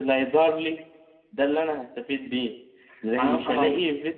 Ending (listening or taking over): listening